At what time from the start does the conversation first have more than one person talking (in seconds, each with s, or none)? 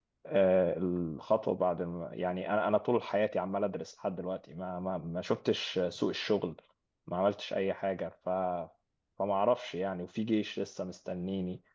none